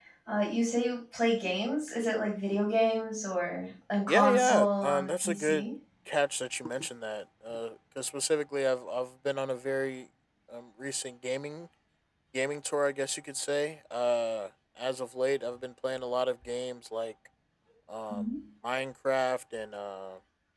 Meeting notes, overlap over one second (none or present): present